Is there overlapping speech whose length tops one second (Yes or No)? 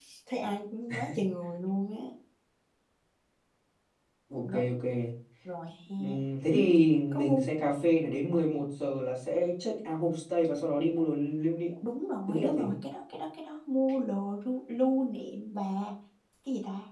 No